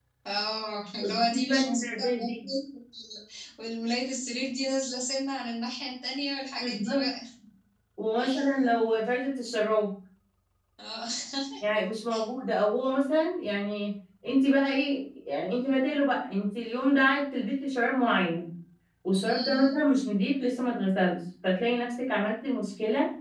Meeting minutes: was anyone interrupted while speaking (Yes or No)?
Yes